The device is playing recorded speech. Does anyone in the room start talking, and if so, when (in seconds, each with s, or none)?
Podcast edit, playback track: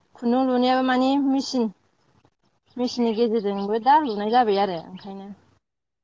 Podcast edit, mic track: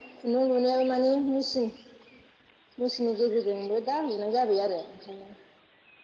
none